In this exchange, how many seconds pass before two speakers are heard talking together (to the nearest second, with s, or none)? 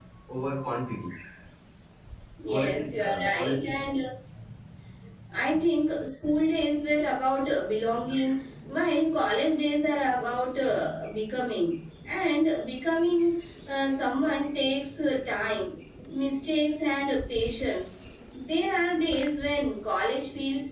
2 s